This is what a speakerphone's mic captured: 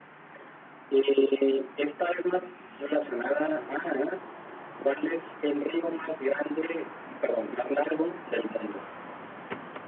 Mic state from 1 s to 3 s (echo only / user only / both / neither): echo only